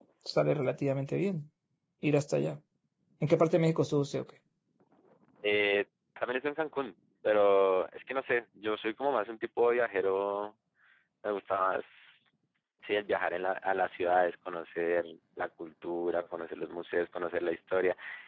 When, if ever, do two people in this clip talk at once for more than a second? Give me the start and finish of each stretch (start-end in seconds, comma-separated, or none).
none